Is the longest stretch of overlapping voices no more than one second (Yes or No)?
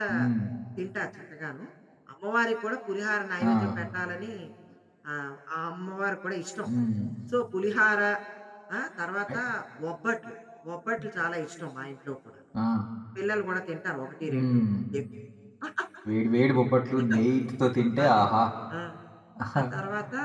Yes